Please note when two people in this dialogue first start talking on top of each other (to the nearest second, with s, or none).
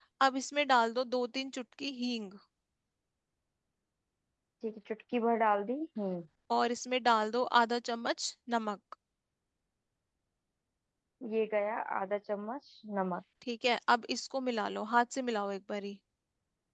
none